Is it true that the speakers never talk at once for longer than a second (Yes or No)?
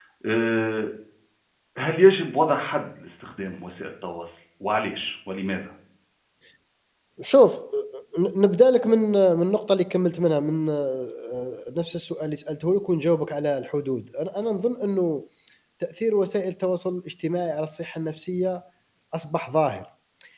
Yes